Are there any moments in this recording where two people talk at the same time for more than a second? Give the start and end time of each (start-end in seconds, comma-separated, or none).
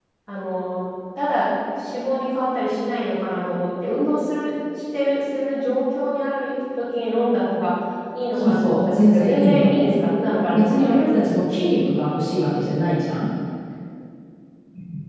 8.4-9.7